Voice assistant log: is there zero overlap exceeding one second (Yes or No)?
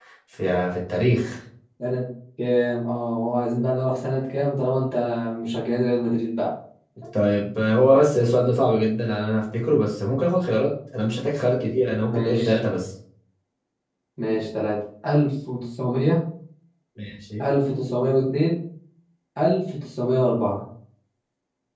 Yes